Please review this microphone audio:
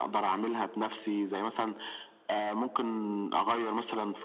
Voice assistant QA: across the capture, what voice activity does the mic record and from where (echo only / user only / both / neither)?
echo only